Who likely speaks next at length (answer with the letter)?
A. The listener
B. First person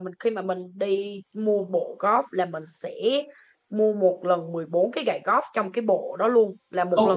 A